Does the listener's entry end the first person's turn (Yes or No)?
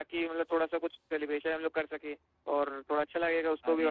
No